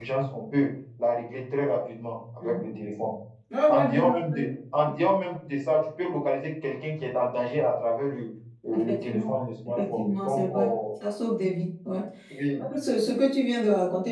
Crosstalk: present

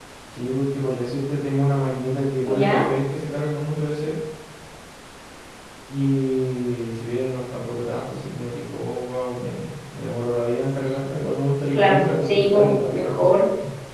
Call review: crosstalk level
present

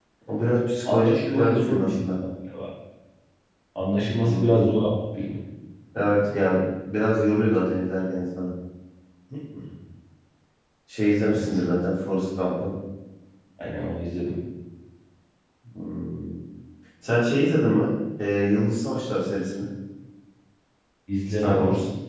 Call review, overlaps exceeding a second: present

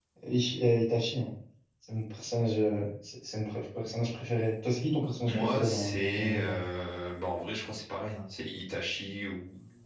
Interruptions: present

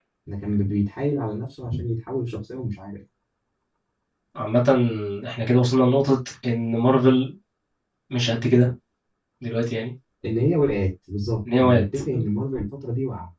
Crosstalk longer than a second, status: none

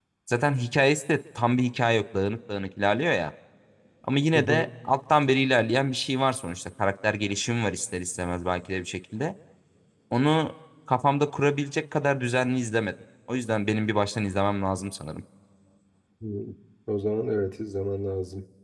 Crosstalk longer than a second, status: none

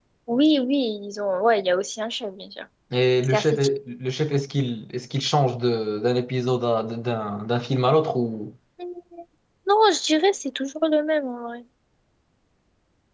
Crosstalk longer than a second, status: none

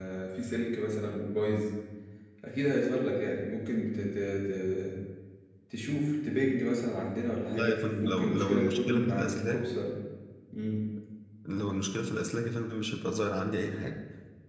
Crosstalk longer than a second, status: present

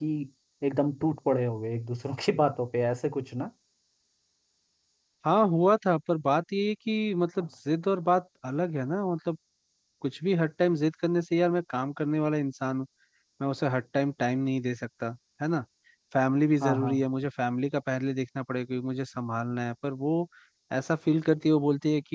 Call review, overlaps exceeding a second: none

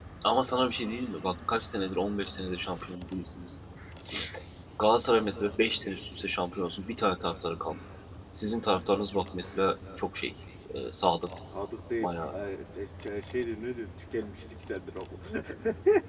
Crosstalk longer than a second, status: none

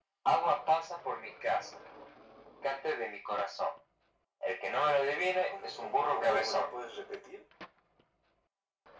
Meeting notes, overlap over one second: present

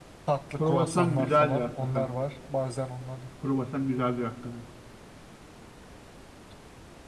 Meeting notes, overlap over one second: present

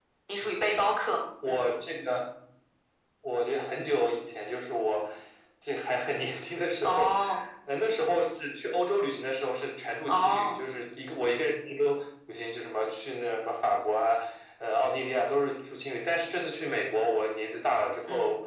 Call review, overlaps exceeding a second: none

